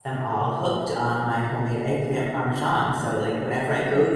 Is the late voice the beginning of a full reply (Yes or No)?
No